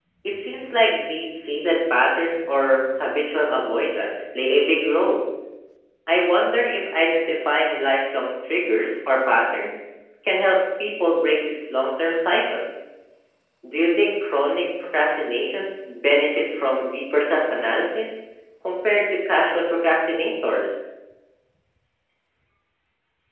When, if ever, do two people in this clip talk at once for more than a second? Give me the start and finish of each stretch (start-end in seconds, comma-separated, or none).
none